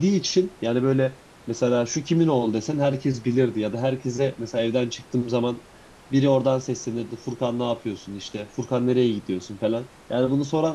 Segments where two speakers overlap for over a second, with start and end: none

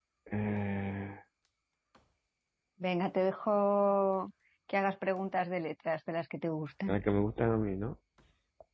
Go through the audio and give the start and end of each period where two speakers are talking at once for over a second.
none

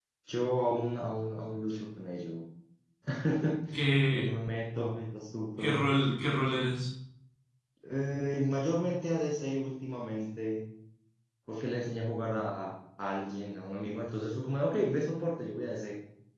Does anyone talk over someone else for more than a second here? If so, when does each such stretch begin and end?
none

